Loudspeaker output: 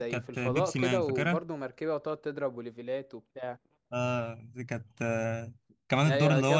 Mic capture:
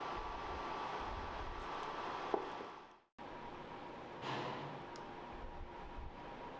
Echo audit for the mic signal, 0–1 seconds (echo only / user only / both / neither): neither